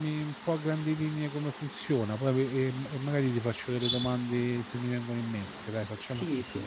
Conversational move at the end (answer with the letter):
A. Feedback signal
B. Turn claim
B